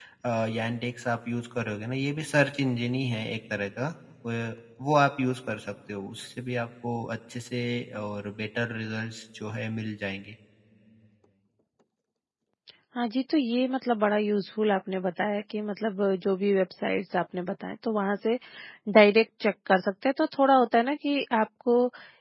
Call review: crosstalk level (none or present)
none